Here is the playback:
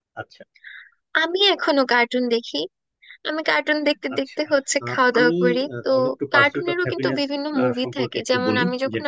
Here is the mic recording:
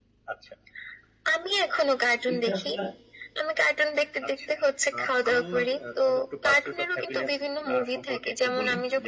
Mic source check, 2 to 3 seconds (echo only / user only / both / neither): both